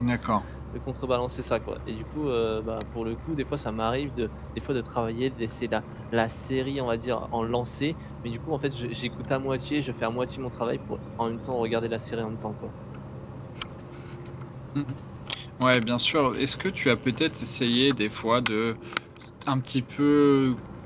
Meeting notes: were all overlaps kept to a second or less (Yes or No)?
Yes